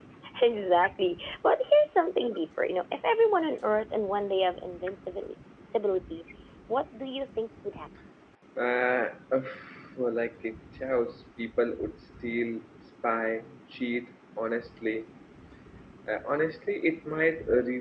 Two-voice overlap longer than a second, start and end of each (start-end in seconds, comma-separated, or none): none